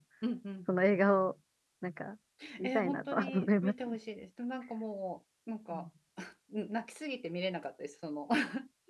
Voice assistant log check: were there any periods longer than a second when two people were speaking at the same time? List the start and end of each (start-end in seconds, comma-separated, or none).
2.6-4.0